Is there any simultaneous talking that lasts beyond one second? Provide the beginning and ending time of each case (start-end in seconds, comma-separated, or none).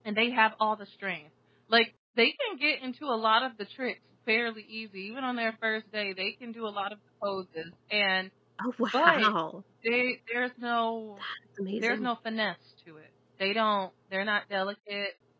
none